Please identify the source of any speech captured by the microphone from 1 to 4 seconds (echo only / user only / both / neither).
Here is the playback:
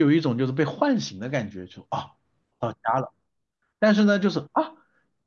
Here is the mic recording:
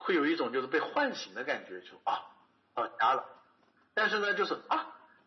echo only